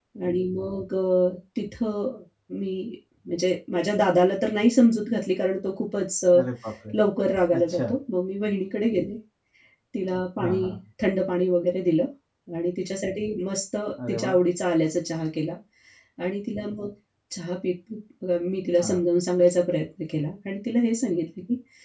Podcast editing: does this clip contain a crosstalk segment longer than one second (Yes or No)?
No